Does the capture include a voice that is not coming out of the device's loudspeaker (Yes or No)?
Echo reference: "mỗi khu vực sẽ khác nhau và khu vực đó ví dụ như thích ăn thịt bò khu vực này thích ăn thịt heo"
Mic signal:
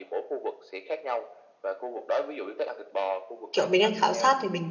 Yes